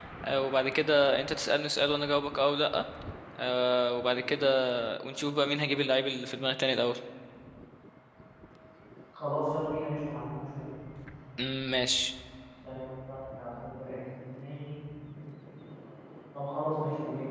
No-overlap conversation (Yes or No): Yes